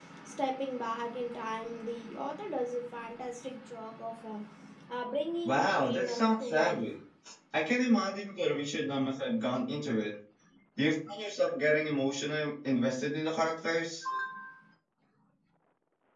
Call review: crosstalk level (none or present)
present